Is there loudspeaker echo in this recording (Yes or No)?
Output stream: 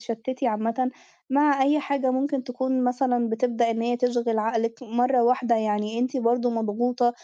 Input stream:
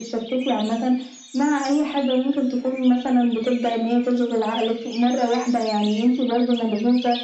Yes